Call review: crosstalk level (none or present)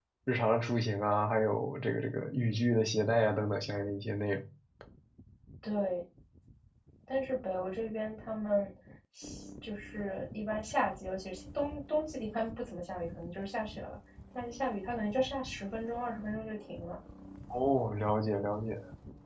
none